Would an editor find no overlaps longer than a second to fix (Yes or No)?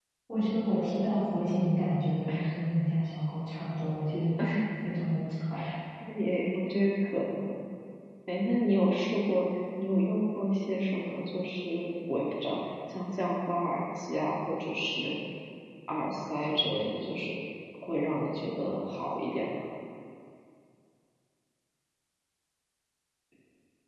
Yes